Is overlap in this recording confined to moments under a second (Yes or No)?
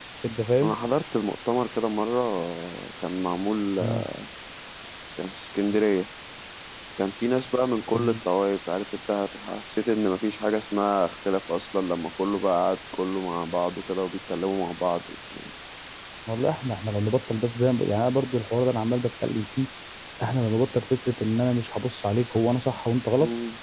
Yes